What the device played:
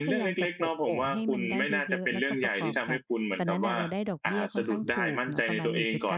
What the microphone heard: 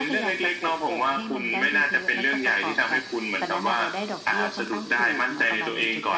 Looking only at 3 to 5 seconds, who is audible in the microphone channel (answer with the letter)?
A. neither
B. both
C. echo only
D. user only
C